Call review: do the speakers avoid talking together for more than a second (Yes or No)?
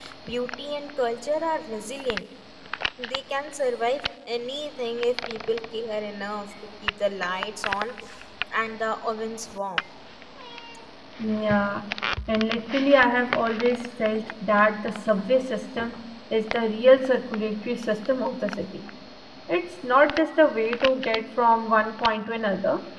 Yes